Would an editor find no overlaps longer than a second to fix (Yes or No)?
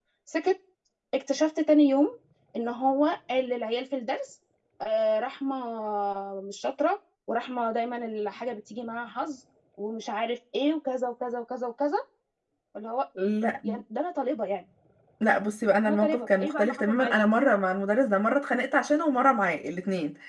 No